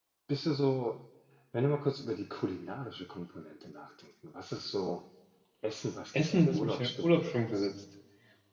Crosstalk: present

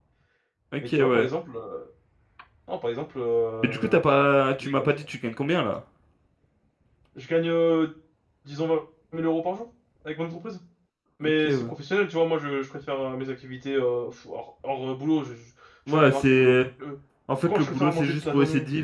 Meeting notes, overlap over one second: present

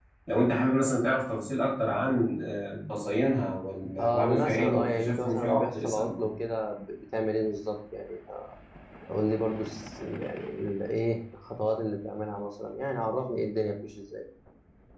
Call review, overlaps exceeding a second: present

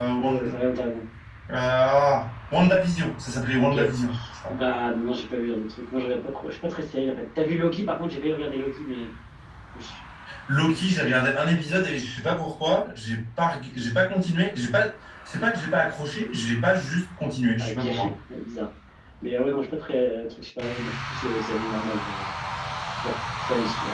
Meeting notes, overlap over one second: none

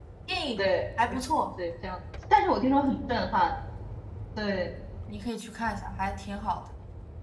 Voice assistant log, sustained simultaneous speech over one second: none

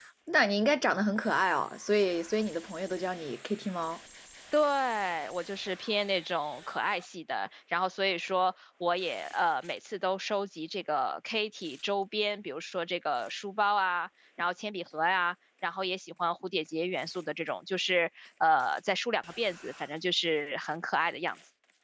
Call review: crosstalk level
none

